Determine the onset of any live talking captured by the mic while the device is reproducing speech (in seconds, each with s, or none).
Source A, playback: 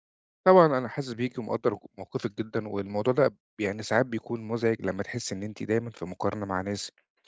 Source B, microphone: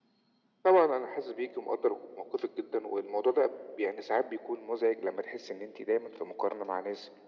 none